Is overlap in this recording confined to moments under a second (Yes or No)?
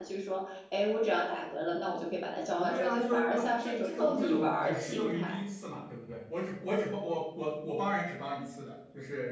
No